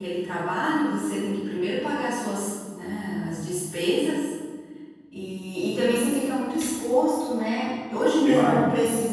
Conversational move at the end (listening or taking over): listening